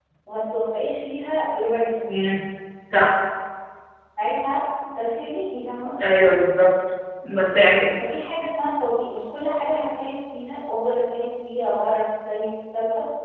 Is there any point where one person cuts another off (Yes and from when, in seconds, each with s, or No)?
No